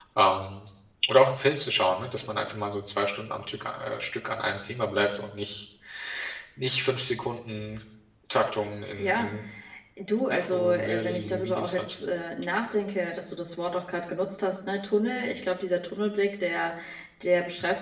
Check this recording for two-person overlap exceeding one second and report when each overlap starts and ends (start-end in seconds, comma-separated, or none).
10.3-11.8